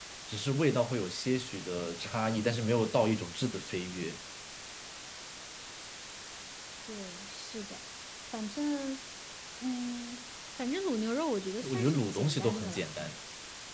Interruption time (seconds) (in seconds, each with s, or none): 11.6 s